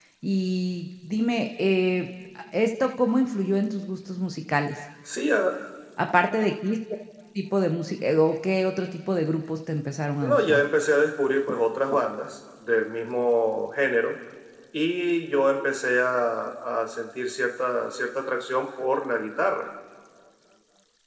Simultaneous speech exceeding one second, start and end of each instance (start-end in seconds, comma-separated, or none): none